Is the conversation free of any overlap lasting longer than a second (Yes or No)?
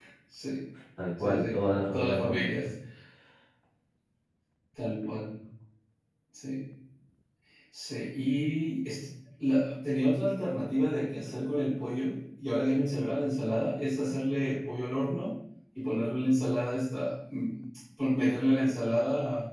No